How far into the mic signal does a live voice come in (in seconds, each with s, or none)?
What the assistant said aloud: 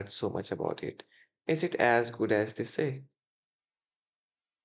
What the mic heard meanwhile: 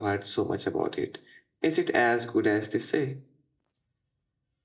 none